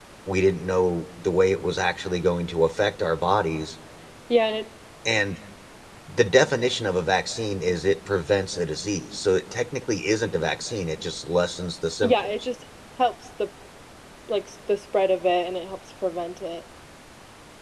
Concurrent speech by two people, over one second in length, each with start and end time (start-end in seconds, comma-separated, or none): none